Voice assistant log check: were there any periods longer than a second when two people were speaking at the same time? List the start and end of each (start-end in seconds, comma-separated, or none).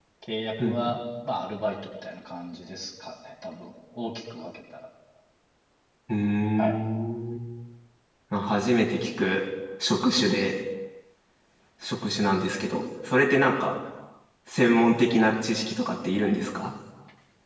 none